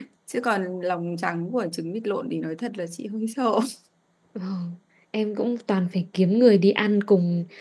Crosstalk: none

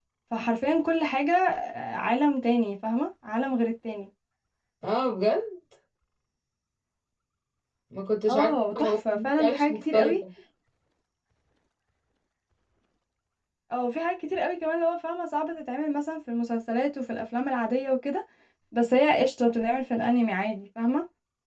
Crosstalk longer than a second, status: present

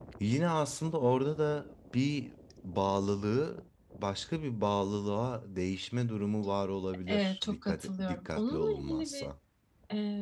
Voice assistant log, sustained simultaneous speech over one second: present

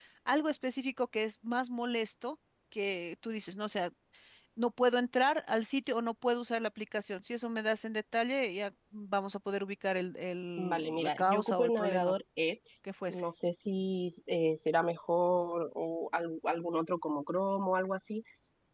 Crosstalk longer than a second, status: present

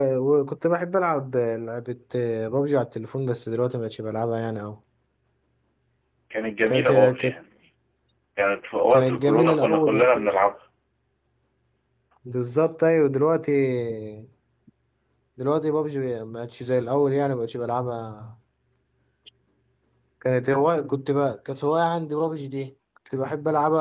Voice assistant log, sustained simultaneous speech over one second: present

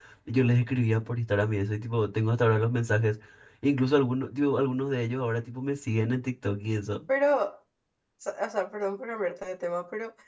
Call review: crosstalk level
none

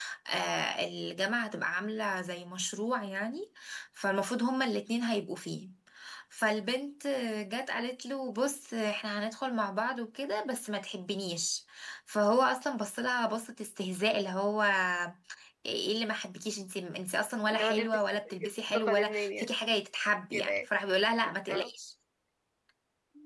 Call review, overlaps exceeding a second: present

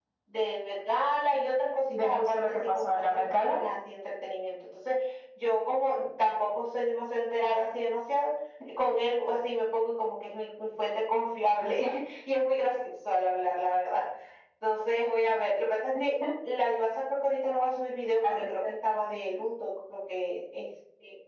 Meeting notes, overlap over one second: present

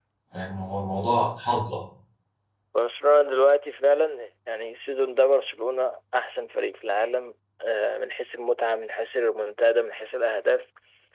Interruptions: none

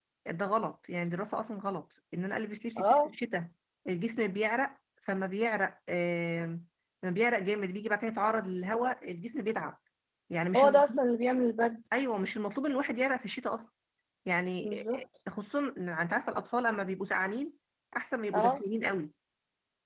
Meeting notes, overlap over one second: none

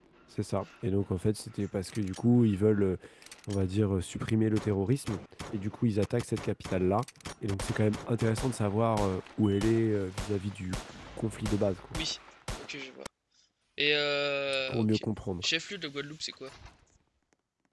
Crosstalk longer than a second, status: none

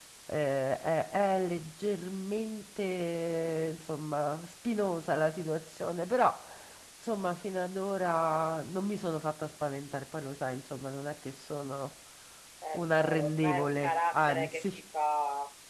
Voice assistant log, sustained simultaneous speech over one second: present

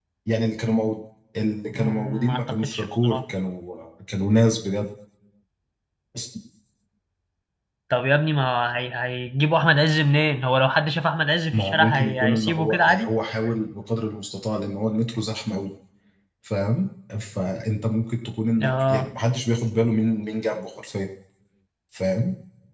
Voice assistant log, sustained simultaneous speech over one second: present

